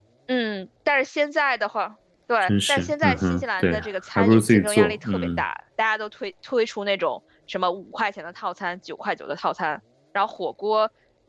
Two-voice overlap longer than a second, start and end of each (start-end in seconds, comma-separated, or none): 2.4-3.8, 4.2-5.4